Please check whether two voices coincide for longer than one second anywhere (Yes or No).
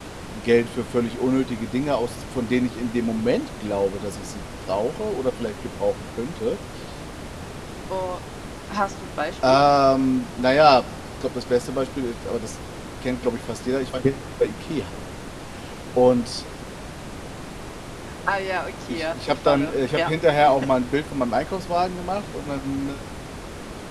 Yes